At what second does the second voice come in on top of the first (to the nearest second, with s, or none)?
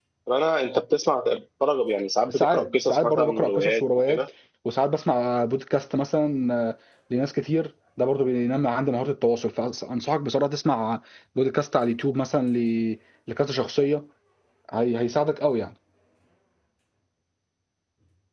2 s